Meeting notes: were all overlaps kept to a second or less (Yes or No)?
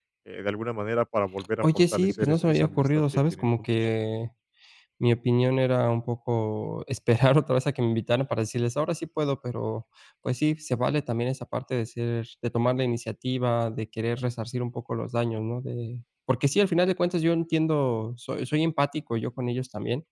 No